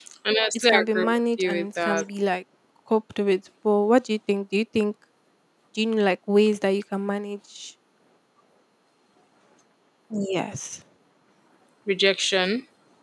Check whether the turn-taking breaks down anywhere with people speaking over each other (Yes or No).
Yes